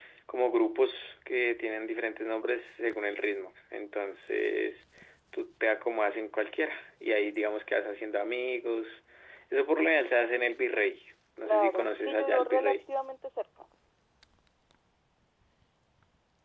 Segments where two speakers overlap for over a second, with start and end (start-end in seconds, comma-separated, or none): 11.4-12.7